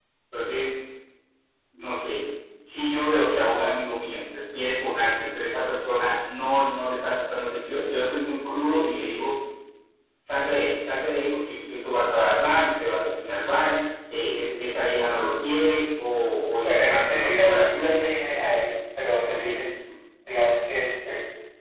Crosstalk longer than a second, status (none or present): present